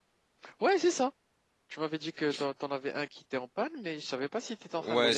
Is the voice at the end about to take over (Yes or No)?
Yes